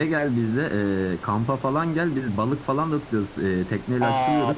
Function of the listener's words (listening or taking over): taking over